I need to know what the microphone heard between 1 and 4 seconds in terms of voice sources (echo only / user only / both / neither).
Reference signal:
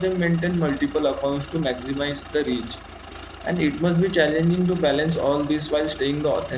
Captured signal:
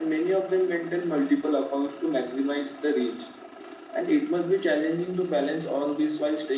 echo only